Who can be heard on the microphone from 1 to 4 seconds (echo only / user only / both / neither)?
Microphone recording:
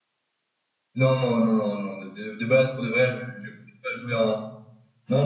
user only